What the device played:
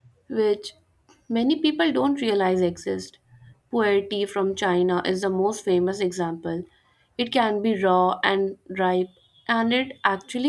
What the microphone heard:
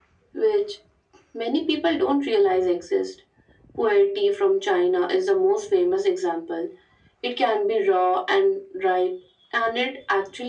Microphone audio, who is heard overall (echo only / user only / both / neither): echo only